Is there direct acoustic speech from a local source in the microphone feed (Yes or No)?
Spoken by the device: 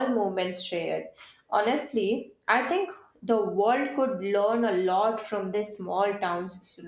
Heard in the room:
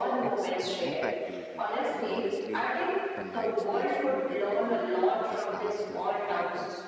Yes